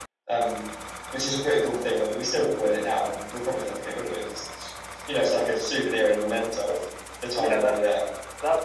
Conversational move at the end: taking over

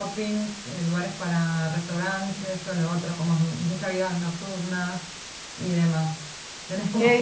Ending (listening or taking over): listening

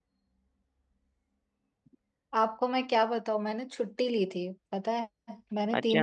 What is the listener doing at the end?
listening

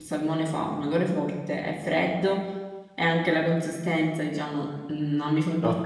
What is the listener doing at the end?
taking over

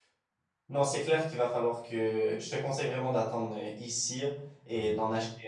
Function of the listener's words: listening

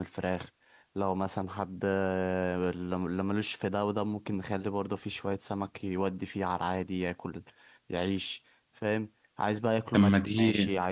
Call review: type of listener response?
listening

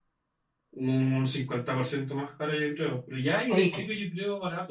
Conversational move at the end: listening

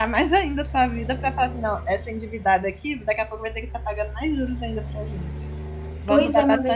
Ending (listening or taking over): taking over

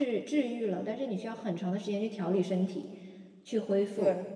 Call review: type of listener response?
listening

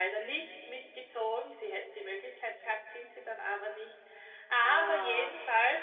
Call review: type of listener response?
listening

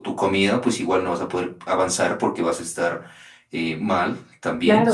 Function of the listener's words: taking over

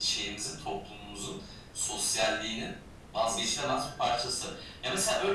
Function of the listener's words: listening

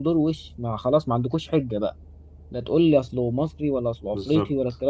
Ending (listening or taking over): listening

